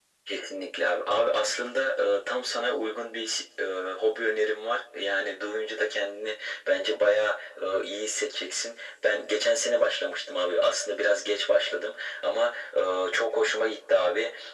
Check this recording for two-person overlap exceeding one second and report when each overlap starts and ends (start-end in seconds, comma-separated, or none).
none